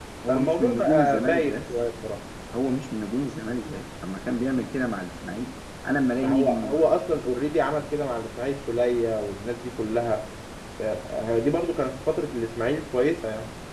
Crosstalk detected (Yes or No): Yes